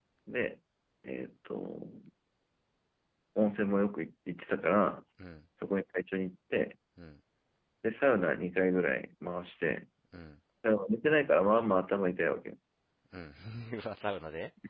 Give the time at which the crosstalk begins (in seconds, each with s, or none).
none